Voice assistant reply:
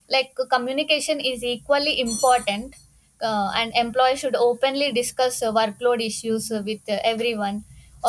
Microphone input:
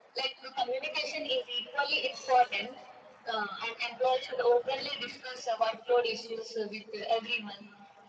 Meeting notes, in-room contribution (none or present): none